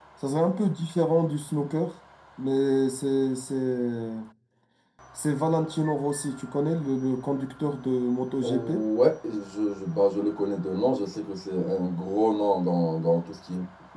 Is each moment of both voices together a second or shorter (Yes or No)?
Yes